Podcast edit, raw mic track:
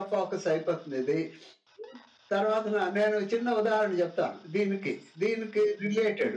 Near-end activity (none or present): none